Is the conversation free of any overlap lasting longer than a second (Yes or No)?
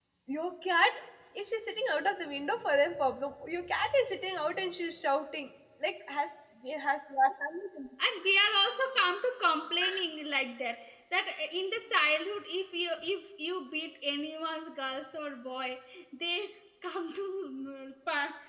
Yes